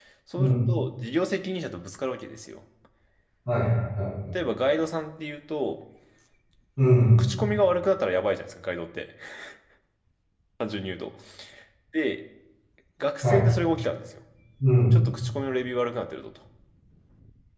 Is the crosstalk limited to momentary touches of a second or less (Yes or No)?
Yes